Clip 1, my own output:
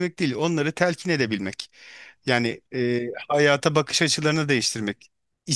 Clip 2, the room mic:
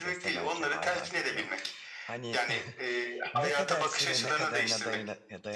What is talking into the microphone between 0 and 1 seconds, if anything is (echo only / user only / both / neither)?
both